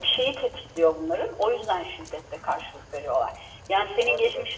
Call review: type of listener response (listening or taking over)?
listening